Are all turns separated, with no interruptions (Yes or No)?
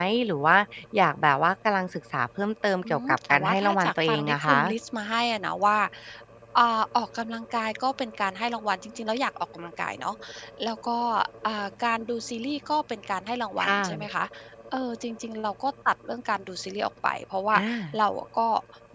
No